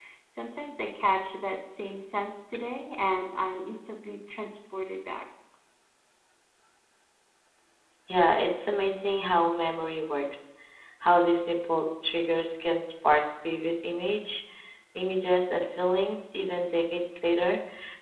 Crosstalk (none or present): none